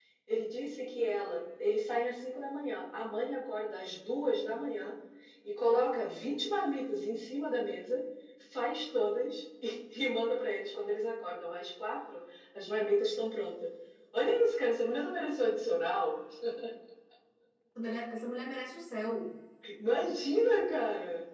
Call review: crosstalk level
none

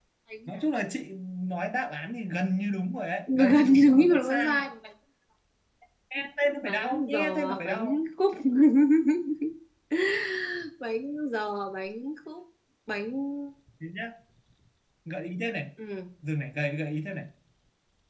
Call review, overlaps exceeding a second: present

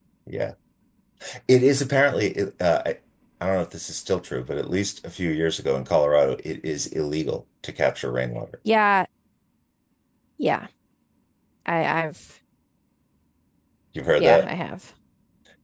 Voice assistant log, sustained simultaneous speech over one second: none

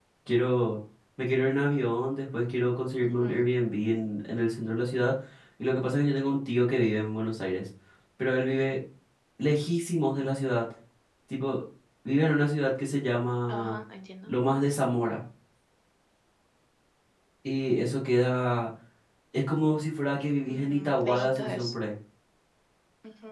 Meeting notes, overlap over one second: present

